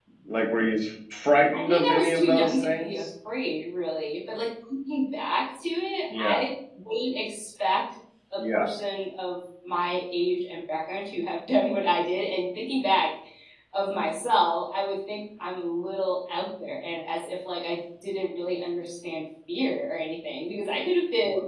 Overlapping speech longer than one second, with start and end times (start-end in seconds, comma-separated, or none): 1.5-3.0